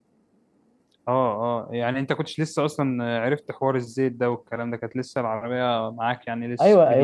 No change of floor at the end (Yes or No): No